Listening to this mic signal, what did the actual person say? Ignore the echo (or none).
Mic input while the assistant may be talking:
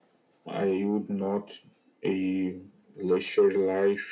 none